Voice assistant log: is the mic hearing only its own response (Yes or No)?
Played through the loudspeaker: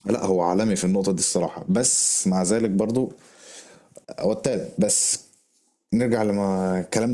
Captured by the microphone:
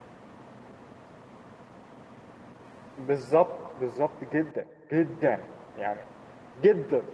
No